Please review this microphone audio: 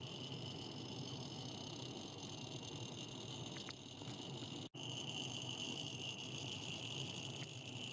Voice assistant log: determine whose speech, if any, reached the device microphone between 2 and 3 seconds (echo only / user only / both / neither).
neither